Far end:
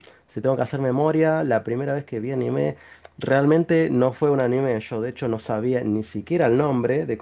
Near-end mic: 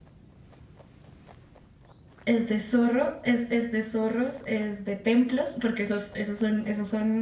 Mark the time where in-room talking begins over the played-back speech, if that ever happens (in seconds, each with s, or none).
2.2 s